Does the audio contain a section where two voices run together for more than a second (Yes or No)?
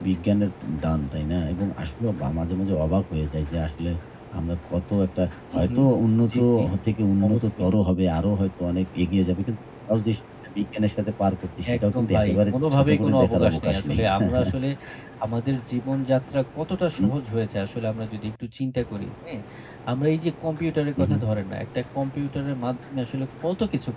Yes